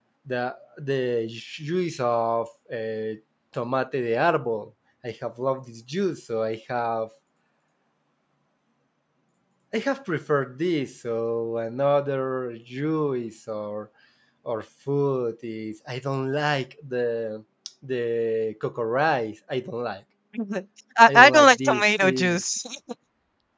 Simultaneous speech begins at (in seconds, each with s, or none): 21.1 s